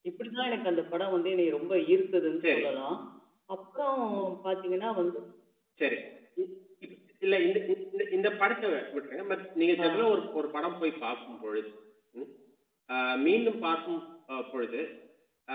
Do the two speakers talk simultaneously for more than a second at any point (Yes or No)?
No